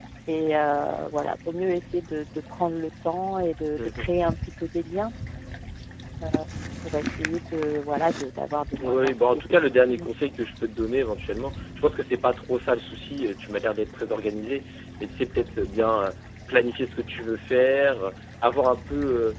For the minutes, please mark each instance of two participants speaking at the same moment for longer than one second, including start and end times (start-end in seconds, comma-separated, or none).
8.8-10.1